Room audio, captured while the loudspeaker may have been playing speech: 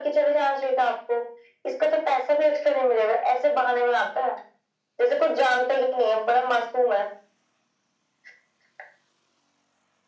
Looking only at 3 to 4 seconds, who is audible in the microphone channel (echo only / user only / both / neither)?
echo only